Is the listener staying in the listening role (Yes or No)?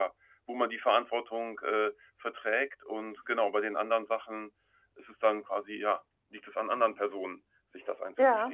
No